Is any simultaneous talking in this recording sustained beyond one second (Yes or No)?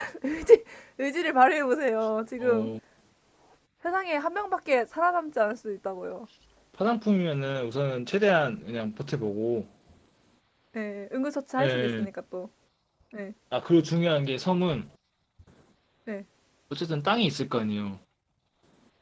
No